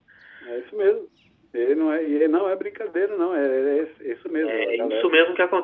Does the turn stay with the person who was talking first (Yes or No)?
No